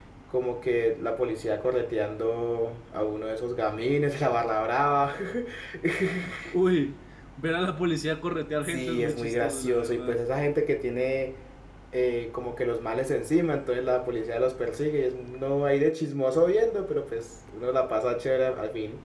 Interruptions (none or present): present